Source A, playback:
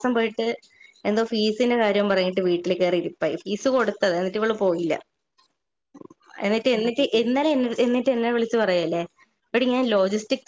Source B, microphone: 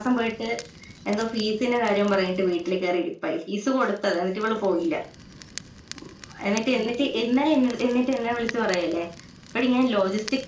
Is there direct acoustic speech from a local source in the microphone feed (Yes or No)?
No